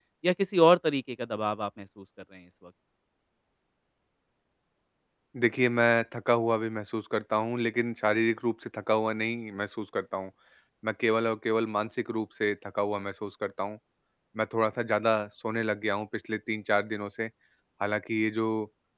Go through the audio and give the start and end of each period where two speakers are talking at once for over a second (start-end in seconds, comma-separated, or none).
none